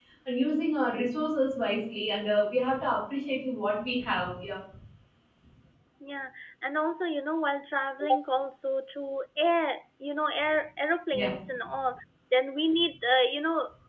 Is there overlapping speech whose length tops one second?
No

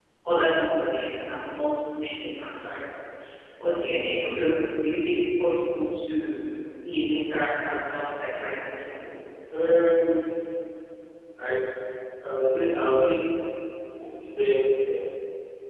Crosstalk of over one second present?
No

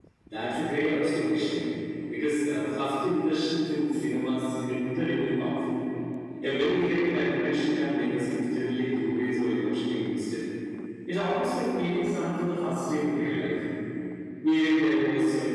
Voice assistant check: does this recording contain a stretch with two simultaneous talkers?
No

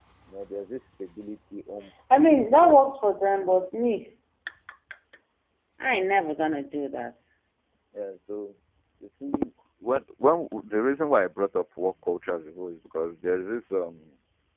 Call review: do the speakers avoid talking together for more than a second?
Yes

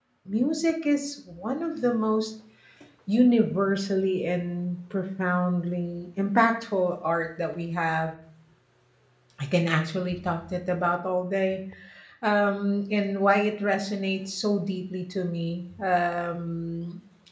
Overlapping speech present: No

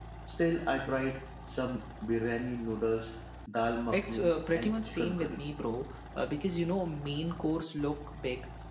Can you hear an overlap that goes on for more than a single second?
Yes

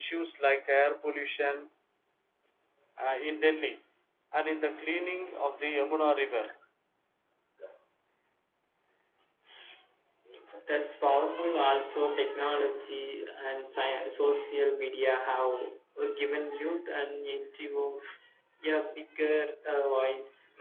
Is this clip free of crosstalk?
Yes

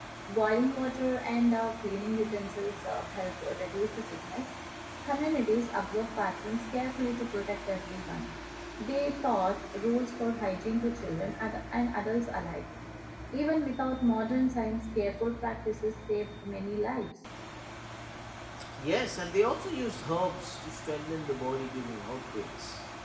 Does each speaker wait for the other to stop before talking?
Yes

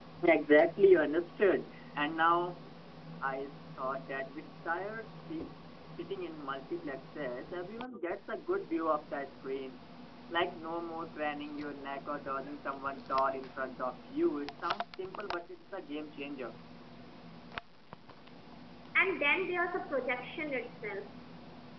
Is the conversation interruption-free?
Yes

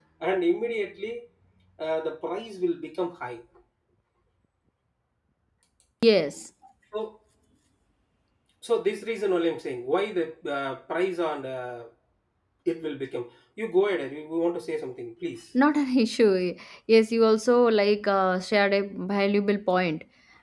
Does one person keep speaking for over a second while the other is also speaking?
No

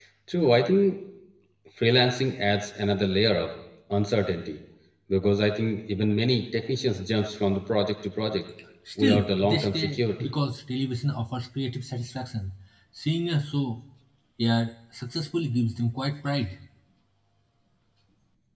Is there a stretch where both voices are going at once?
Yes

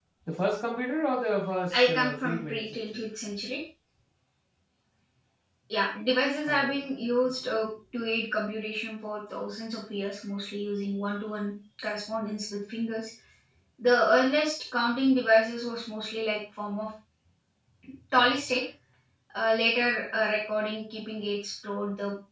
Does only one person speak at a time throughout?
No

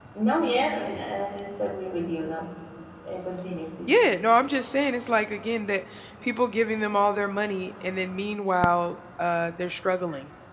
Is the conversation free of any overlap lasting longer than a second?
Yes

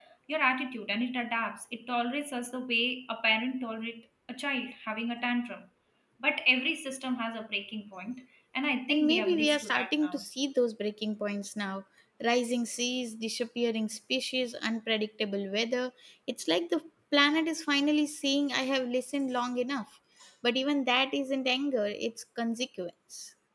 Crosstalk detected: Yes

